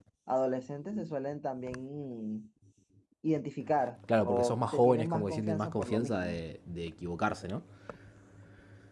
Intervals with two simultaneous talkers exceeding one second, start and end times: 4.2-6.4

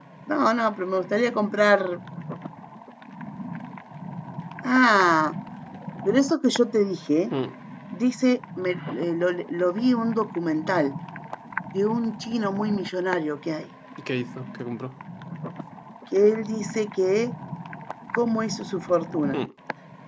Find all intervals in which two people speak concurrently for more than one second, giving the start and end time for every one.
none

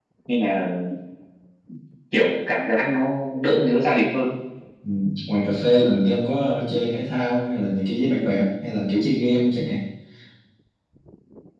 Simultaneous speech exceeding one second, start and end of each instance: none

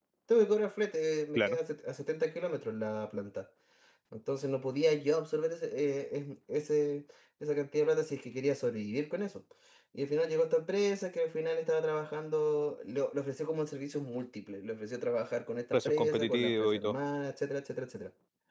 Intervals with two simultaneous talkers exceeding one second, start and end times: 15.7-16.9

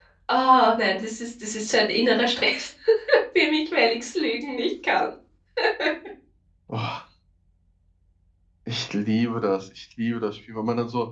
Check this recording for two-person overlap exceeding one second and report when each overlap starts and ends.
none

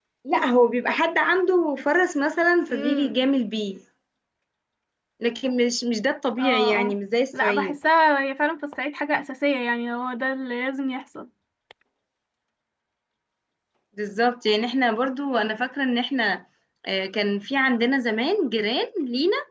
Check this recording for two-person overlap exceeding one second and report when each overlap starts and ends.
none

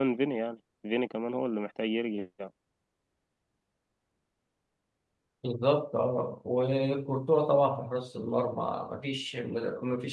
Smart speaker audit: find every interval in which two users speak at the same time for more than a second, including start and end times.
none

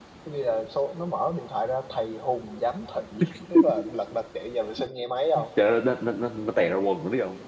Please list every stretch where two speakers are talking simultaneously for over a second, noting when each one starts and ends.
none

